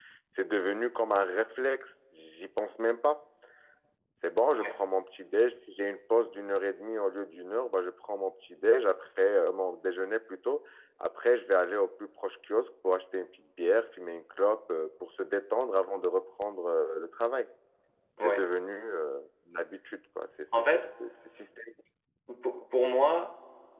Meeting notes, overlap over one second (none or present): none